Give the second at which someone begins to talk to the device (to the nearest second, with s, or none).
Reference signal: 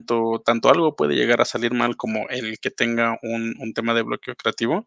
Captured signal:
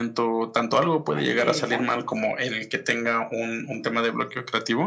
1 s